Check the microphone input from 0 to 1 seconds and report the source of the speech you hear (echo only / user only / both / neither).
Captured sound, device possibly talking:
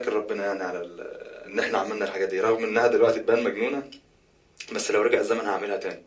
echo only